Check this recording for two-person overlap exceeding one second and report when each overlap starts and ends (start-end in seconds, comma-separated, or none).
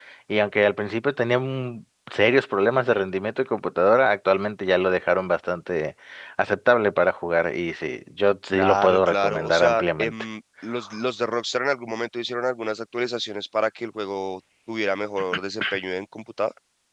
8.5-10.1